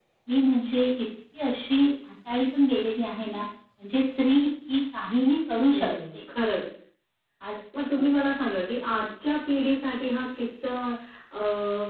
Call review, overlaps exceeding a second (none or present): none